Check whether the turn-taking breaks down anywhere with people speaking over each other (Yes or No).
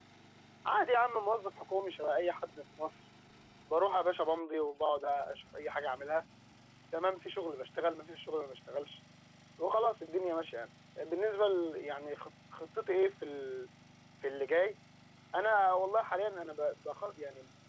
No